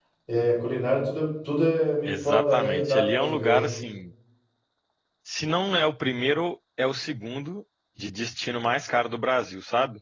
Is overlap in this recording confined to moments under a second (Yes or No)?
No